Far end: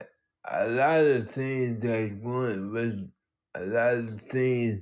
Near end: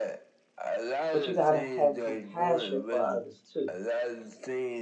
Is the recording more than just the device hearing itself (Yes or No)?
Yes